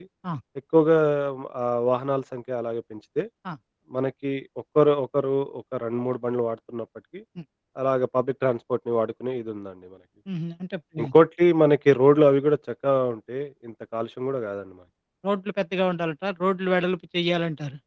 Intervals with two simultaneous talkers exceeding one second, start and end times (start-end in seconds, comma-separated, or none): none